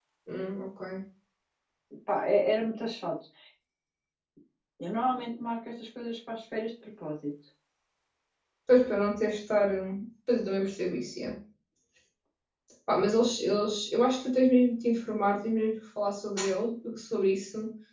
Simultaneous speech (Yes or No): No